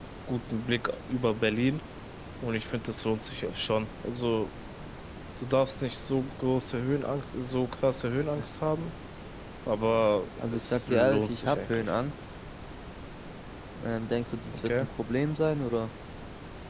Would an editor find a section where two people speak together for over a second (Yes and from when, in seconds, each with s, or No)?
Yes, from 10.5 s